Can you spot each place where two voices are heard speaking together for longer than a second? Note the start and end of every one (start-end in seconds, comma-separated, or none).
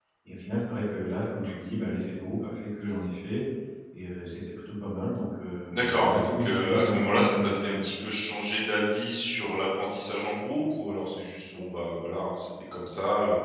5.7-7.8